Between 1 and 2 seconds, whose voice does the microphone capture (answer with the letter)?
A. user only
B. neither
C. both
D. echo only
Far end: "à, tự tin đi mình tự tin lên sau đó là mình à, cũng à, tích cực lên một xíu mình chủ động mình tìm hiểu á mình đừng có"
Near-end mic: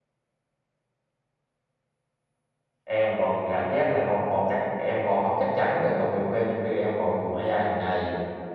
B